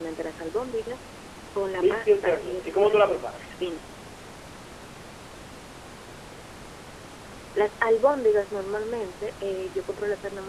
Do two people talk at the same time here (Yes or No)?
Yes